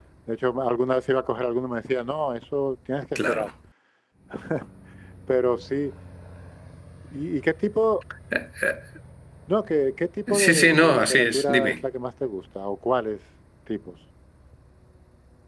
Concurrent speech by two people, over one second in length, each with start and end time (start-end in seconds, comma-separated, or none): 10.4-11.7